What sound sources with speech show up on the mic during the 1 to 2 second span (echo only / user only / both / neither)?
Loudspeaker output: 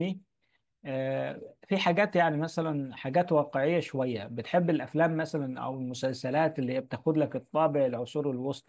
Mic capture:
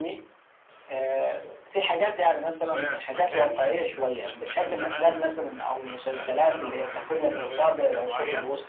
echo only